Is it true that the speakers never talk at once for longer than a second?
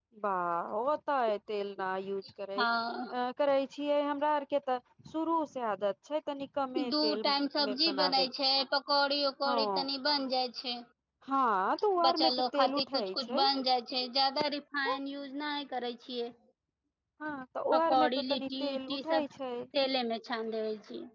No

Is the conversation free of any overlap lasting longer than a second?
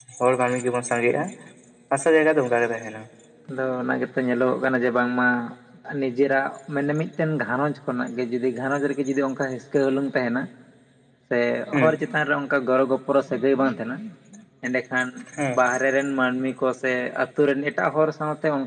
Yes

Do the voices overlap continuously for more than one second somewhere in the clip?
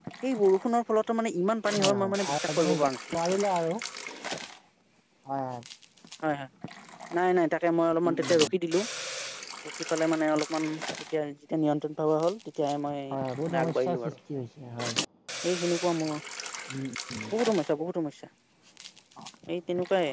Yes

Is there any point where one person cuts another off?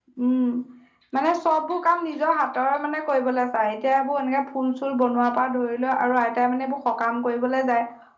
No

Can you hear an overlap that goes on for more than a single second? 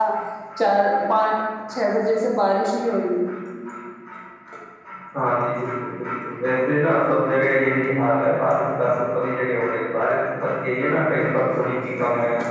No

